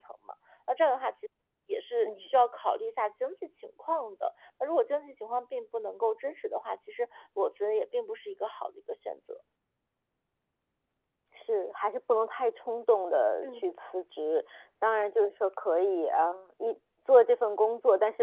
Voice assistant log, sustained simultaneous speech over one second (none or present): none